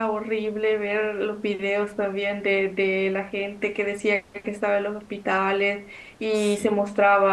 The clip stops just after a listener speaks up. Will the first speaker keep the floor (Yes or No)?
Yes